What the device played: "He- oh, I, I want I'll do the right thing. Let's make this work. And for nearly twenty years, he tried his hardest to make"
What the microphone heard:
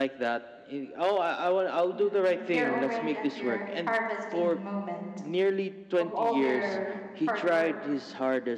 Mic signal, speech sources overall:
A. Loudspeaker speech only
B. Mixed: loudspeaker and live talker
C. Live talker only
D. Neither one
B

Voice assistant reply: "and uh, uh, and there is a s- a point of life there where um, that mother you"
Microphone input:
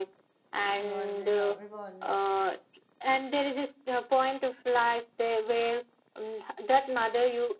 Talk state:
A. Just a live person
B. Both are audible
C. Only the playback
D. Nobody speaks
B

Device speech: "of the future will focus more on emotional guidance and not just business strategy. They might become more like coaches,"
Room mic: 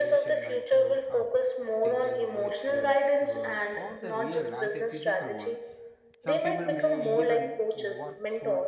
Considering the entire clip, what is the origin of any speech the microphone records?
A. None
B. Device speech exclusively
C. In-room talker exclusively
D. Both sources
D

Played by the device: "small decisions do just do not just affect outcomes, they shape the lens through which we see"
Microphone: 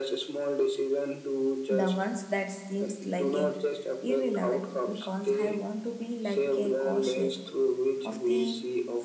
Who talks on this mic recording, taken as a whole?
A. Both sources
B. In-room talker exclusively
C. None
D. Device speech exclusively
A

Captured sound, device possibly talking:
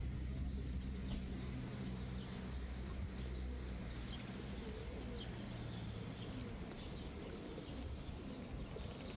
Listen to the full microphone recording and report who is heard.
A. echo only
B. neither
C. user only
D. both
B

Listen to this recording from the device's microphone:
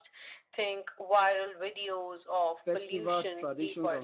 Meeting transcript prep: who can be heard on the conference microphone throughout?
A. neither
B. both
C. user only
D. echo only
B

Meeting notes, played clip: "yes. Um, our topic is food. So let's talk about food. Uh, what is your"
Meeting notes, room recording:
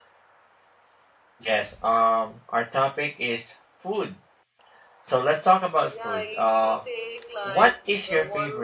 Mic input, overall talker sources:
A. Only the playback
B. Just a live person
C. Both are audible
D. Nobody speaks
C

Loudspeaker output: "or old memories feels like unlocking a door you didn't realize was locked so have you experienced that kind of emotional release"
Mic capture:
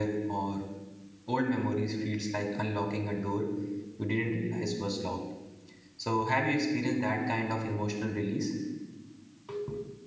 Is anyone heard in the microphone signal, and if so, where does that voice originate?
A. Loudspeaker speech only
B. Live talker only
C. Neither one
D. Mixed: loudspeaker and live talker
A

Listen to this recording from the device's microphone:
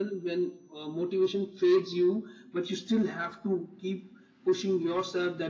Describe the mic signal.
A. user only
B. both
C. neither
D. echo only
D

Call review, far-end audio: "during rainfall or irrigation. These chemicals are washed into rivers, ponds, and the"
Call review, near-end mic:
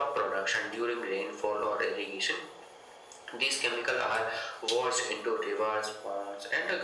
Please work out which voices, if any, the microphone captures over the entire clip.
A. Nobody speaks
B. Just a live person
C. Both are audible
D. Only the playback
D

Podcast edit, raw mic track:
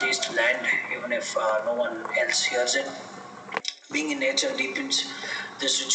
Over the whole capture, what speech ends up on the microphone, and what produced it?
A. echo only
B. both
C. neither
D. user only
A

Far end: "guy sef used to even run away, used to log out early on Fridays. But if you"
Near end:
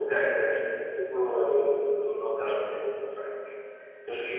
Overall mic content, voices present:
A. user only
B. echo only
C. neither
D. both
B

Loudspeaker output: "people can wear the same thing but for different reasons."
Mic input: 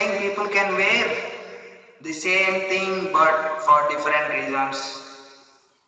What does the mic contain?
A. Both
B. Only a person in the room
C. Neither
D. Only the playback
D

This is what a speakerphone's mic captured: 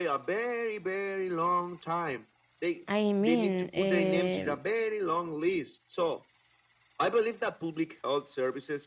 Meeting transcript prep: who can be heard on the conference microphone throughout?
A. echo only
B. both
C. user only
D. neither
B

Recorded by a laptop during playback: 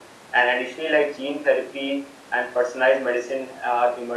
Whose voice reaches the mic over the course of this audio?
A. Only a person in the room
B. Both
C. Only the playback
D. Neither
C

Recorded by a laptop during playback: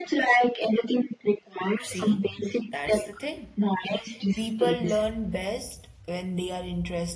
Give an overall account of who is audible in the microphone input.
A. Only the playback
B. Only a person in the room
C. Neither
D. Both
D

